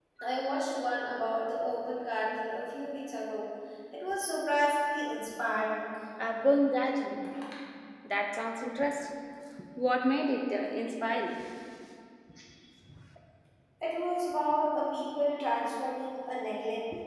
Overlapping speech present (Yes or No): No